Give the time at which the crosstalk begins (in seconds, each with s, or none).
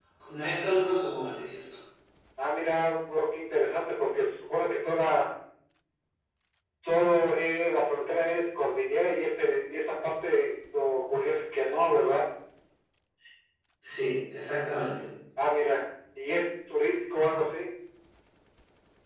none